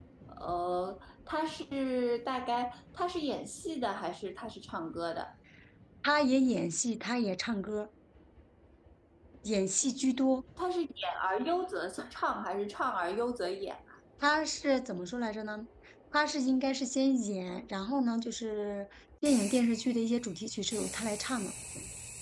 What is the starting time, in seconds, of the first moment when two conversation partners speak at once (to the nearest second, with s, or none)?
none